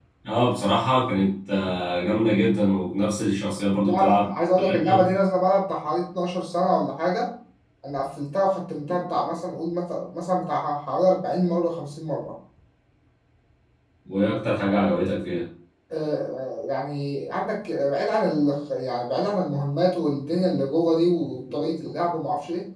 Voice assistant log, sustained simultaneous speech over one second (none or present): present